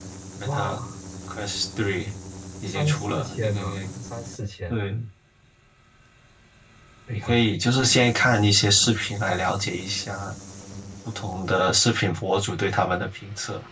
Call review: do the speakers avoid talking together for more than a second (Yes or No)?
No